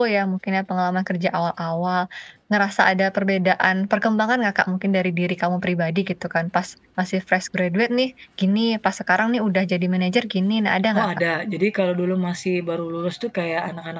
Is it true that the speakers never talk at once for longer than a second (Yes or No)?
Yes